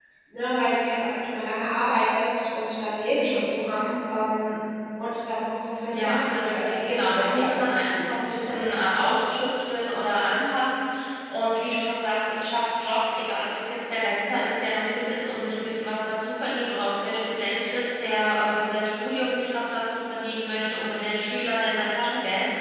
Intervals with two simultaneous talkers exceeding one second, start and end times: 5.9-8.6

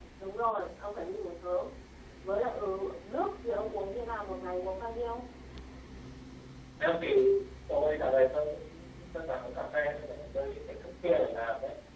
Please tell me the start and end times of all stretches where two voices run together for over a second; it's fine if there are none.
none

